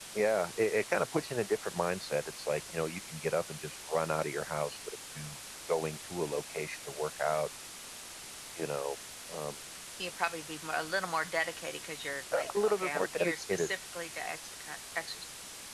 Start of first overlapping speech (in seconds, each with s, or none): 12.3 s